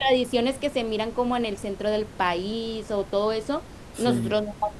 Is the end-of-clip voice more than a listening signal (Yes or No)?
No